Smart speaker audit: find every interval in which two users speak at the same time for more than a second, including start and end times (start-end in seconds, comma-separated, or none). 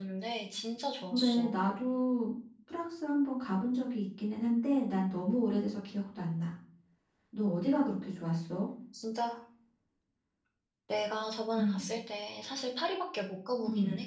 none